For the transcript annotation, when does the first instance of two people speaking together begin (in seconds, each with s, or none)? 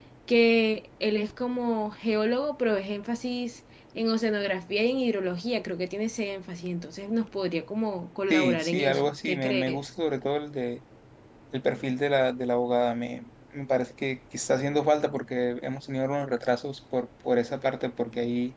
8.3 s